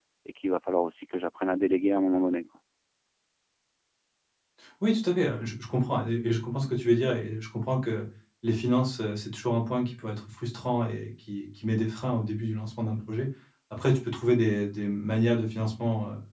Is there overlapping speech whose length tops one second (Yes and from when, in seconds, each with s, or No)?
No